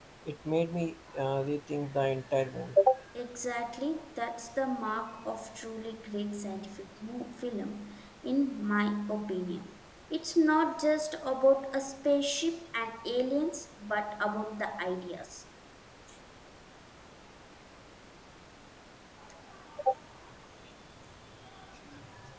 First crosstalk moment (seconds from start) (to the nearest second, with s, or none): none